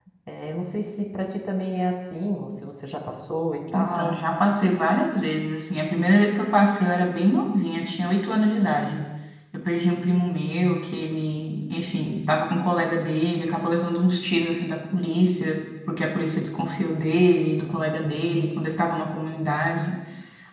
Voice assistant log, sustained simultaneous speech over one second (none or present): none